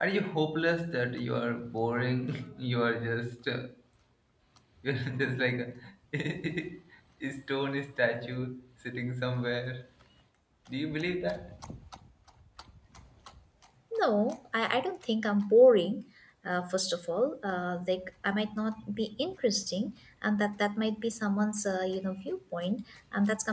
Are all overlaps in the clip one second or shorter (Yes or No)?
Yes